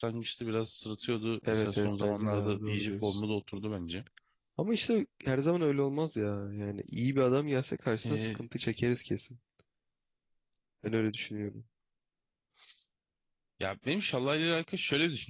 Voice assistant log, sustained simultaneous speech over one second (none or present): present